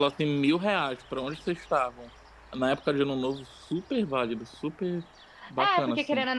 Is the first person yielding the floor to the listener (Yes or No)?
Yes